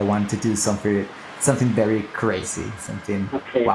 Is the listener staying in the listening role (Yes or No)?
Yes